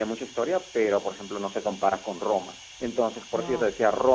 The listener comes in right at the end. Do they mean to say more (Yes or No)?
No